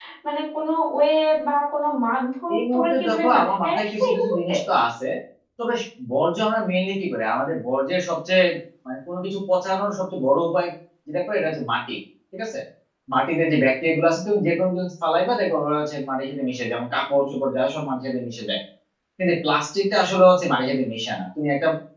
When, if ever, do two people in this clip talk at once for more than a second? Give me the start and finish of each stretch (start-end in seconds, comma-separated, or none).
2.5-4.5